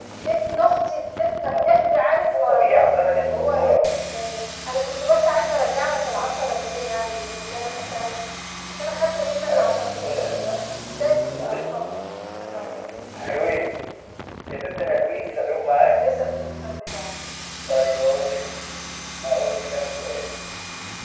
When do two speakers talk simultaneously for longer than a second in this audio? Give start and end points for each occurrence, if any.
2.3-3.5

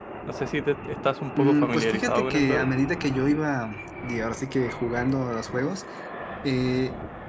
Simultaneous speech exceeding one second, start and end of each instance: 1.3-2.7

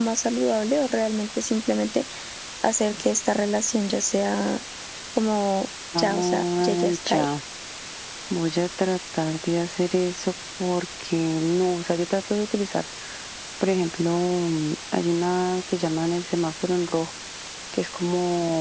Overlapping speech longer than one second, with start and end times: 6.0-7.3

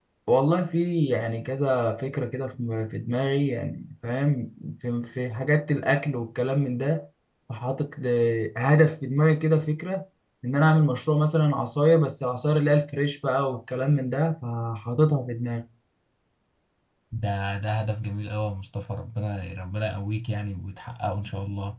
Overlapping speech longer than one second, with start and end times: none

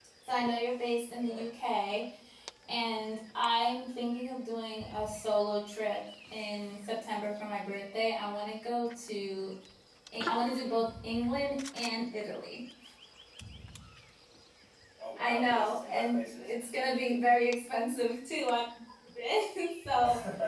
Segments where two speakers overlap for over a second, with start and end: 15.2-16.5

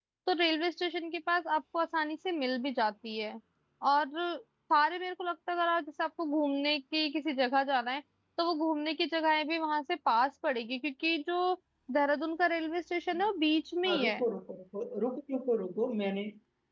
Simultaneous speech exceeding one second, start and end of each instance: none

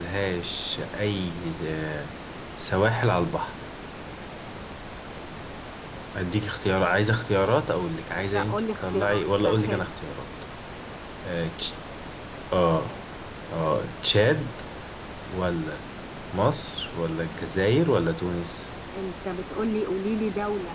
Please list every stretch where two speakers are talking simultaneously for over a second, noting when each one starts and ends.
8.3-9.8

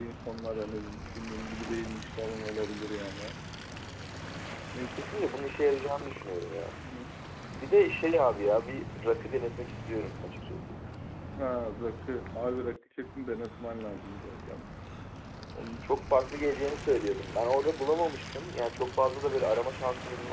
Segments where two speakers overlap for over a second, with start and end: none

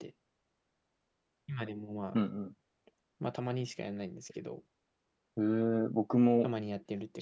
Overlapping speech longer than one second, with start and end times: none

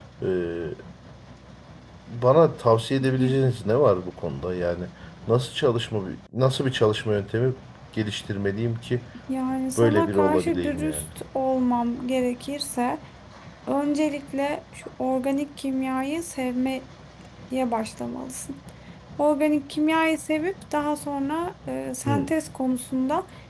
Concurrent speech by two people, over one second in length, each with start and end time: 9.8-11.1

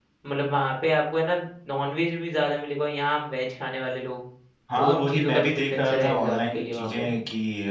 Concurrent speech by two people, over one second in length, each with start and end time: 4.8-7.1

